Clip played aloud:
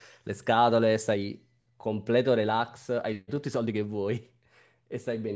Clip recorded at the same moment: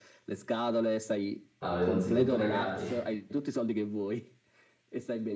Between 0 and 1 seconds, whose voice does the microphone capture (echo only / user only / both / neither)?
echo only